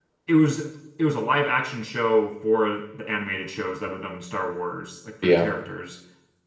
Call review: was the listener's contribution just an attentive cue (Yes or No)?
Yes